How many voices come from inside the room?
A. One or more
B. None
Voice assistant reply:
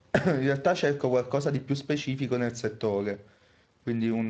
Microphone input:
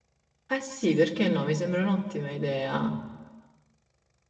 A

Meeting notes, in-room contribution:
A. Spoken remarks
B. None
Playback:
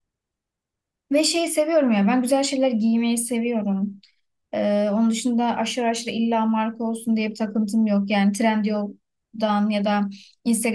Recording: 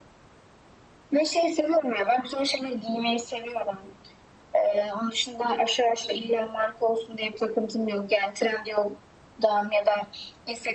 B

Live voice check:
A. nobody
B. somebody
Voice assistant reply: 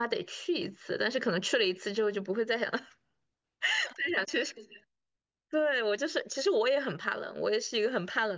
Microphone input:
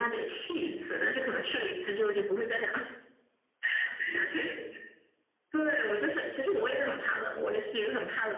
A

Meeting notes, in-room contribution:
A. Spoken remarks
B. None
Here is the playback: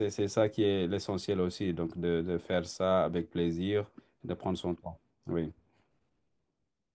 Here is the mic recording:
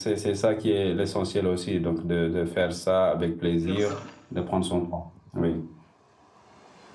A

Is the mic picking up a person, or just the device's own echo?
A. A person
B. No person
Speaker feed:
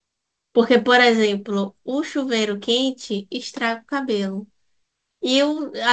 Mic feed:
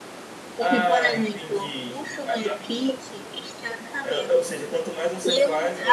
A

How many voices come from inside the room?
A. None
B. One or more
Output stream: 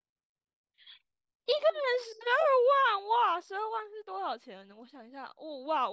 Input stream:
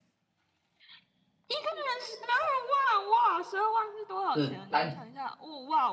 B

